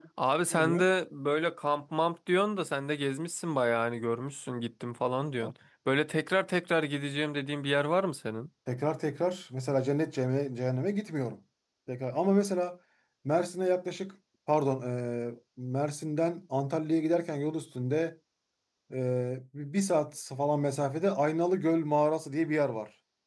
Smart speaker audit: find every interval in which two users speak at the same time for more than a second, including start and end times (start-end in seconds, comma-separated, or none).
none